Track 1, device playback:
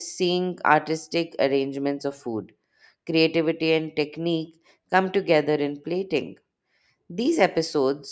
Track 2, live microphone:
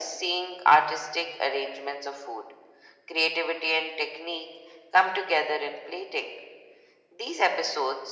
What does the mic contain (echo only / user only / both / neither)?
echo only